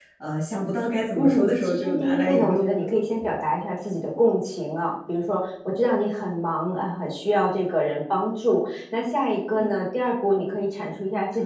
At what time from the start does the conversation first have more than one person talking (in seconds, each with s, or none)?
1.2 s